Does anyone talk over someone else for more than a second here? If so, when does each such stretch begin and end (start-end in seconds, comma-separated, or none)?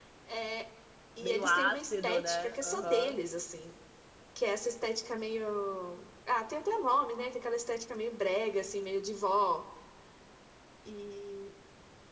1.2-3.2